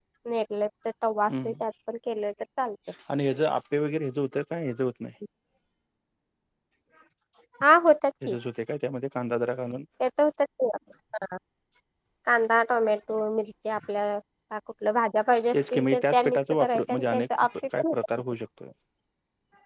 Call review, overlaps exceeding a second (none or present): present